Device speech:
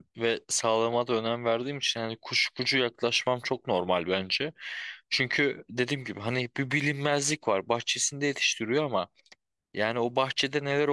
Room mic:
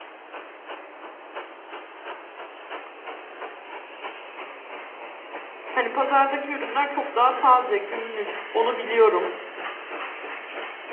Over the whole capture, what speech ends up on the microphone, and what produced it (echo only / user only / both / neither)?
user only